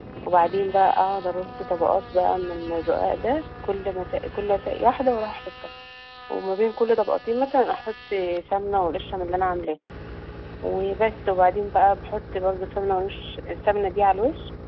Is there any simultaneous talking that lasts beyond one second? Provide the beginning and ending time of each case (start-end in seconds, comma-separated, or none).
none